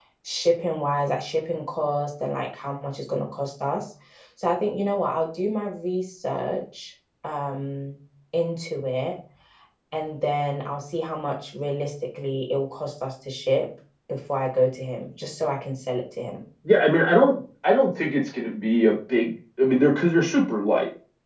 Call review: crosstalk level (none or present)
none